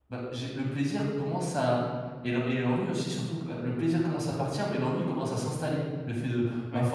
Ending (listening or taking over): listening